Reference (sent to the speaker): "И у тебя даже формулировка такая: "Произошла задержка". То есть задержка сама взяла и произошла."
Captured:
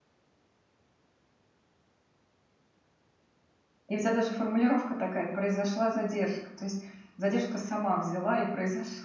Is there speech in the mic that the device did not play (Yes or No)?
No